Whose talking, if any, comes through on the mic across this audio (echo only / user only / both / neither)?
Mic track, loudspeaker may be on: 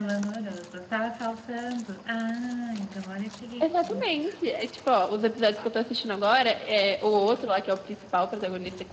echo only